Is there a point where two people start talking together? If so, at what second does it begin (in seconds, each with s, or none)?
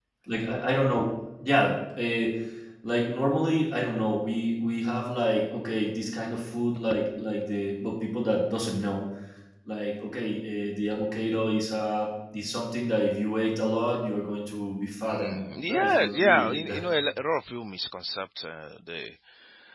15.1 s